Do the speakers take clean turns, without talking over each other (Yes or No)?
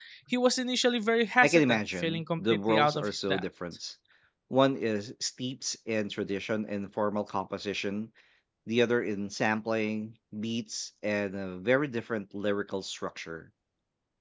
No